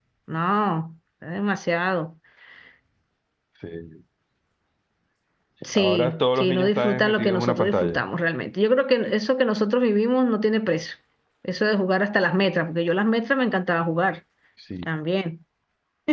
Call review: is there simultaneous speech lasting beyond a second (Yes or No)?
Yes